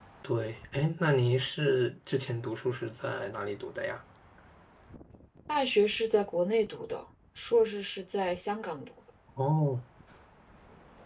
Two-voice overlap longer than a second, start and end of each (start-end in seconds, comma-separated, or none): none